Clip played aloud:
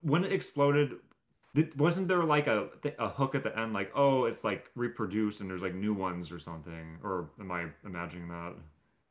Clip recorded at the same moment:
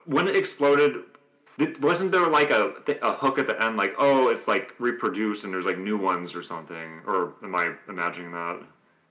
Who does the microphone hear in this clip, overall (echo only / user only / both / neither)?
echo only